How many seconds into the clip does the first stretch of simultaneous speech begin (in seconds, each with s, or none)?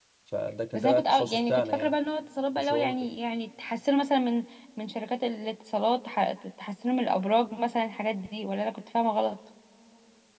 0.7 s